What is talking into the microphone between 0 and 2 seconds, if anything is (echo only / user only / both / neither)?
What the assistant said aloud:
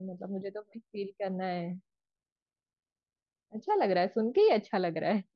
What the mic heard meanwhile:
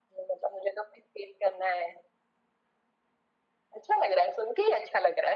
echo only